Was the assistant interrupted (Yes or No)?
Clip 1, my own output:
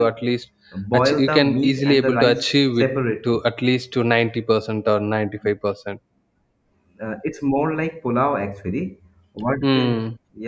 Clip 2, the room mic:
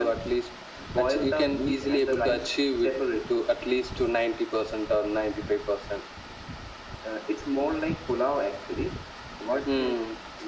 No